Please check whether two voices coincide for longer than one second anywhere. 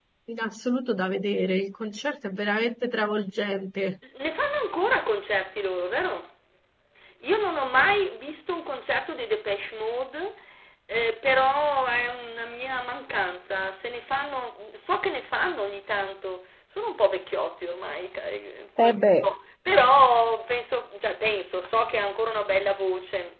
No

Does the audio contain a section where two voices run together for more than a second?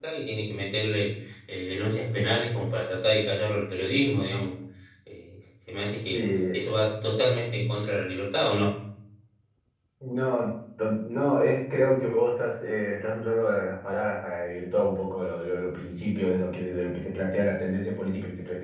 No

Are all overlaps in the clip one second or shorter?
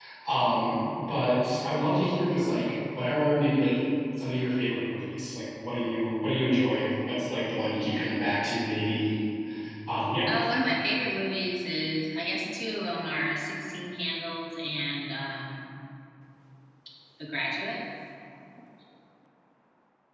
Yes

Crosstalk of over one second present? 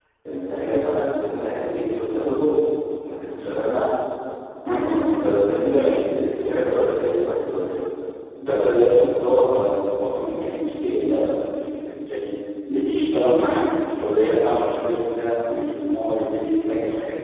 No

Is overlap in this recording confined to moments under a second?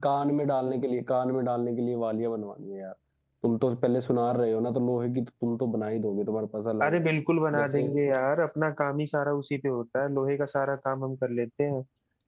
Yes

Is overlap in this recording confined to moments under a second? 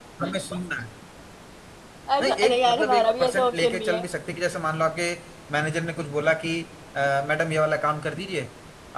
No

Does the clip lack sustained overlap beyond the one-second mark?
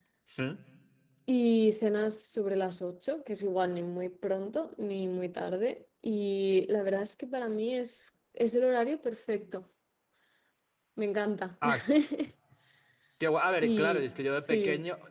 No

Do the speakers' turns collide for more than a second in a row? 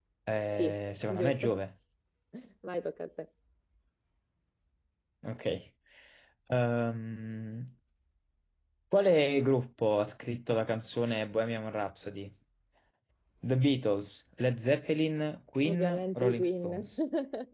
Yes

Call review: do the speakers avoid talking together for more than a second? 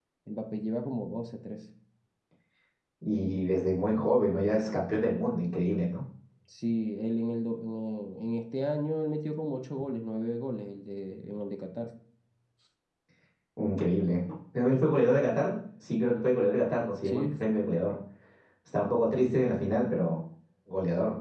Yes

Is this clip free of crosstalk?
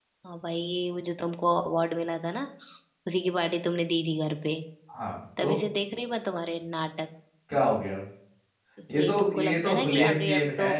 No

